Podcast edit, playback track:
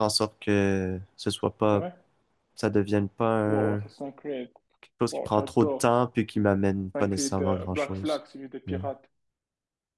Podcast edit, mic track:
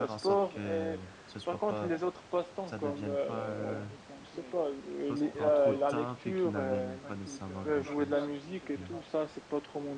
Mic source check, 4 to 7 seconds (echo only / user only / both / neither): both